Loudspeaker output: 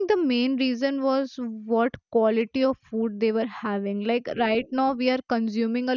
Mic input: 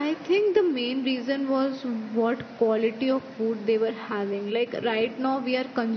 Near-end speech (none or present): none